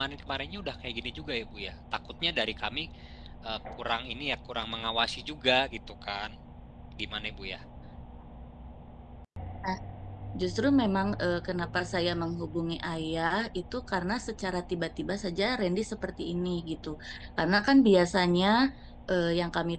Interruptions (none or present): none